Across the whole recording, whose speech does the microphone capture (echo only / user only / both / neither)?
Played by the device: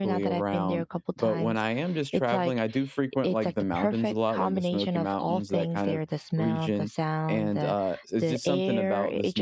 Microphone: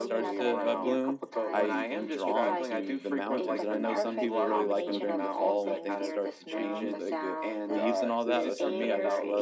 both